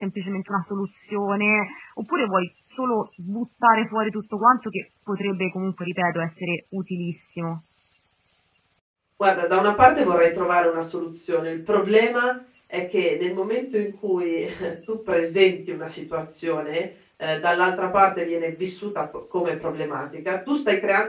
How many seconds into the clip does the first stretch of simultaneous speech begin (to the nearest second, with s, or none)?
none